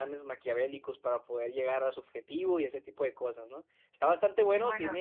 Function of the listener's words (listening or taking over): listening